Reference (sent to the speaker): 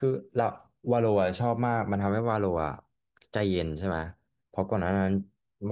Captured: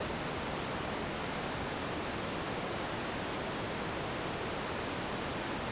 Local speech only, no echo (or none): none